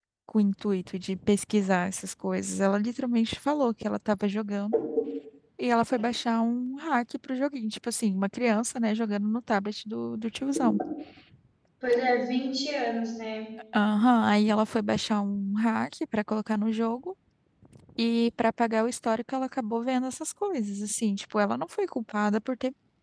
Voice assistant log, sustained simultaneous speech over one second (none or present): none